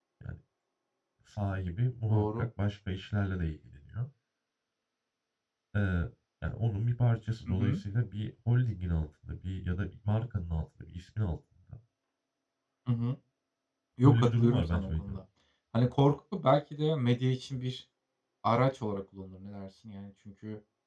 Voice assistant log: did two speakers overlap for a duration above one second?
Yes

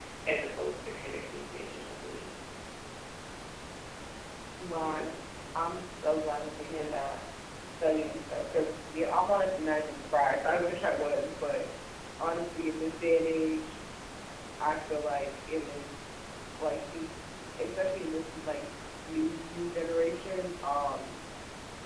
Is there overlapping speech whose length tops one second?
No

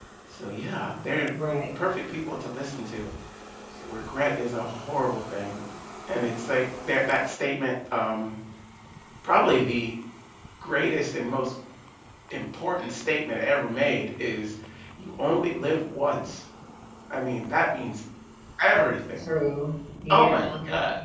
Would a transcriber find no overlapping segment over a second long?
Yes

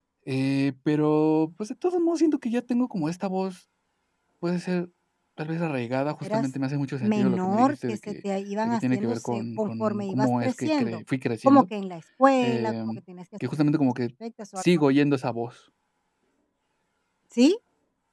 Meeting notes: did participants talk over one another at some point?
Yes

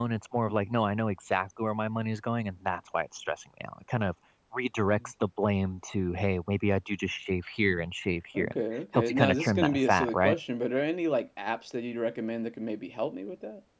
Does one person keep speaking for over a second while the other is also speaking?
Yes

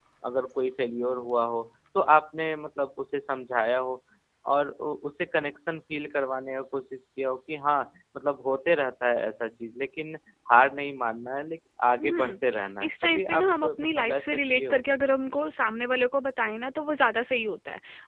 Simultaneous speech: Yes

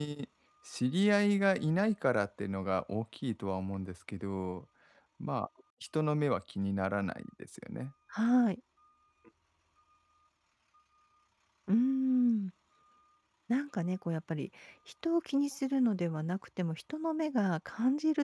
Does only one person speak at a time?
Yes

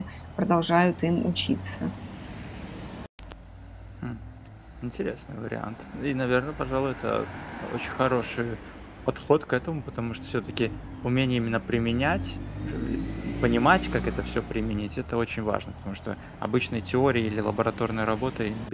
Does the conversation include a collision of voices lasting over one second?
No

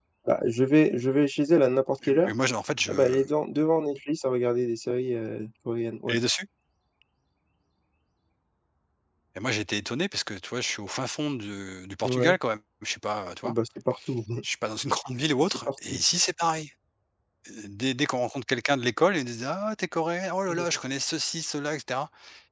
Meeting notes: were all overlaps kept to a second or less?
Yes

